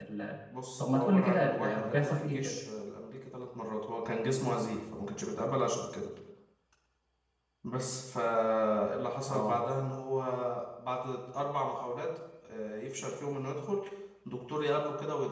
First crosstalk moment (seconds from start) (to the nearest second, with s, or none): 1 s